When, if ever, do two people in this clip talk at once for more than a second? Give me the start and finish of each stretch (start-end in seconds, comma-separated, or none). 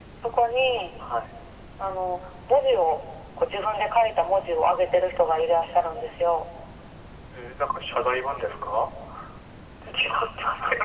none